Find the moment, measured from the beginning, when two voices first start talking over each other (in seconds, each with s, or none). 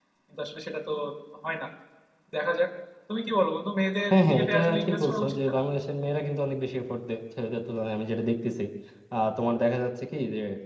4.1 s